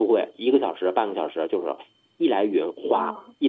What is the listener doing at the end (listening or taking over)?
listening